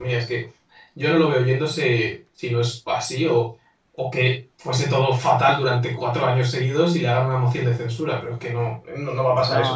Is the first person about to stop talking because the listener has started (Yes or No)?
Yes